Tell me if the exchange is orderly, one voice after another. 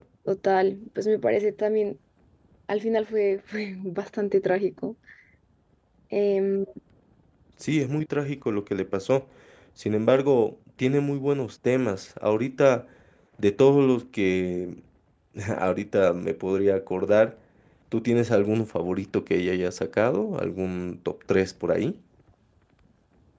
Yes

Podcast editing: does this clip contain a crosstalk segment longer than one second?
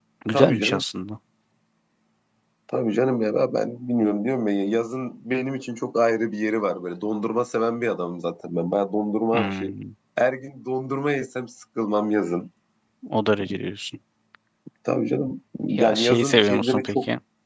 Yes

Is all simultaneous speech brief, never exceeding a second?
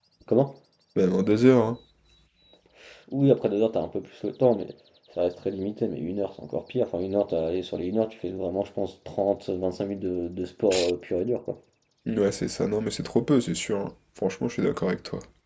Yes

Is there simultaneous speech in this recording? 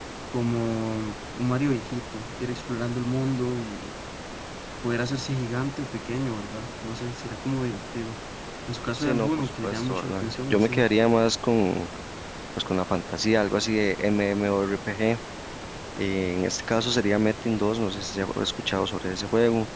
Yes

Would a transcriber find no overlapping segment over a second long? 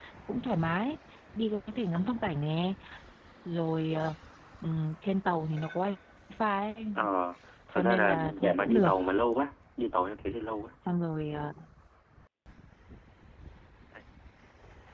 No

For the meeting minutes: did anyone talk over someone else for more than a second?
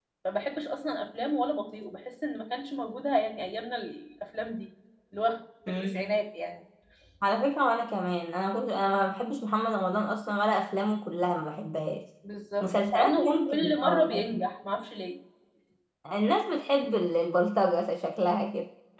Yes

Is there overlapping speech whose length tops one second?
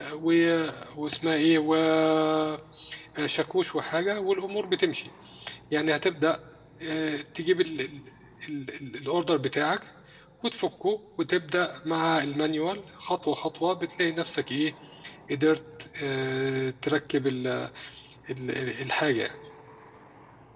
No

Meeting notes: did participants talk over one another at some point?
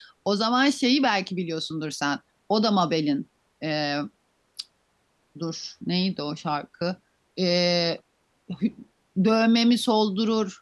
No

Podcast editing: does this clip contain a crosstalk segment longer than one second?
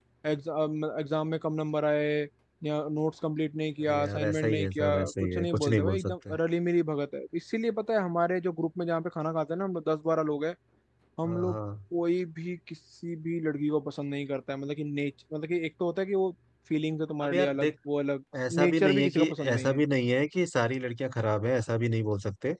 Yes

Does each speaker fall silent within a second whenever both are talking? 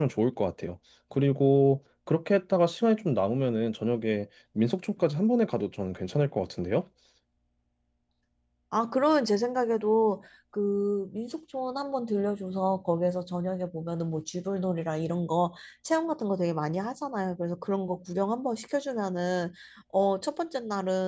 Yes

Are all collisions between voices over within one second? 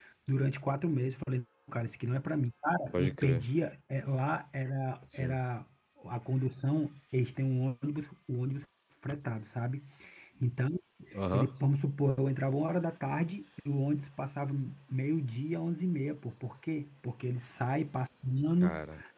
Yes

